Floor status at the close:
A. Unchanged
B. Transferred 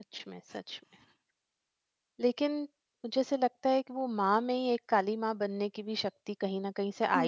A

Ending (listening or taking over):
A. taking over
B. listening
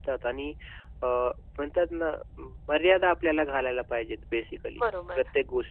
A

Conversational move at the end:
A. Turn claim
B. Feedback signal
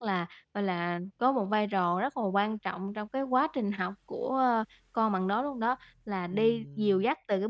B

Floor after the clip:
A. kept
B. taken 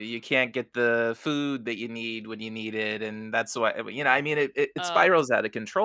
A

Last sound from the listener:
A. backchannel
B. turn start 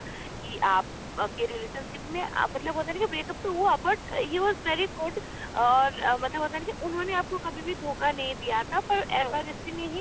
A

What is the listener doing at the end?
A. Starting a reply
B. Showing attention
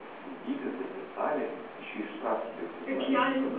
A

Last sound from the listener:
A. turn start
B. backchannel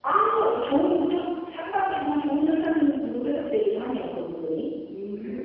A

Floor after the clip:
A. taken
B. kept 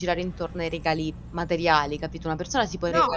B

